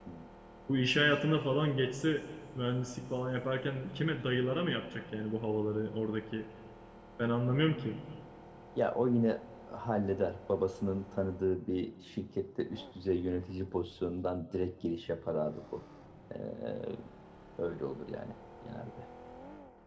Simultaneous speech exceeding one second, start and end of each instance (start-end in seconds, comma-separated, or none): none